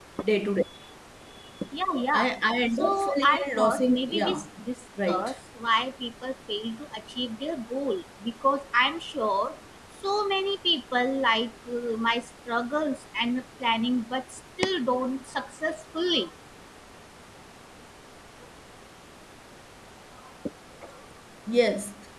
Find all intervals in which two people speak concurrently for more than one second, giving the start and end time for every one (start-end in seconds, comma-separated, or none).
2.8-4.4